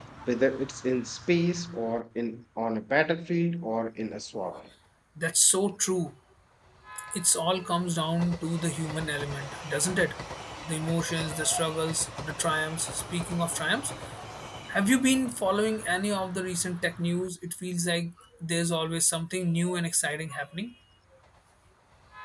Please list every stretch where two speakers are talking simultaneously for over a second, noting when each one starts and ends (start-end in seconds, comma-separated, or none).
none